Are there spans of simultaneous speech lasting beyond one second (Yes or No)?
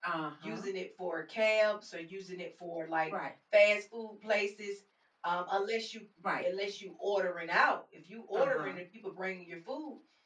No